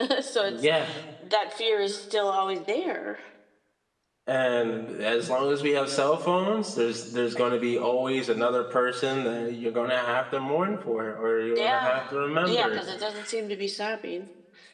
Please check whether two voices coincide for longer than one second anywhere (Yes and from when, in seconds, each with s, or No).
No